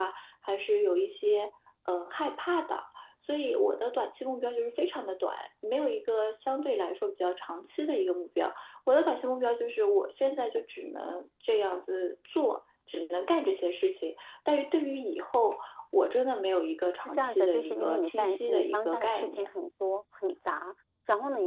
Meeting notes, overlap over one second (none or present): present